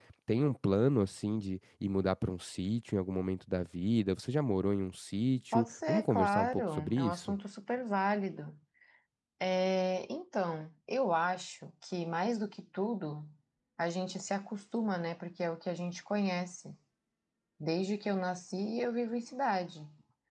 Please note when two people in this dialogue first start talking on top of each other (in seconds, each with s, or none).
5.5 s